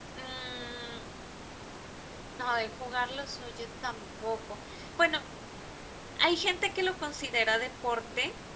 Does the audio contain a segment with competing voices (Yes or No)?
No